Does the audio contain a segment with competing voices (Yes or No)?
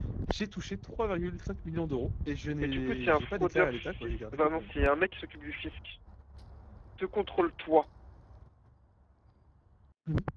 Yes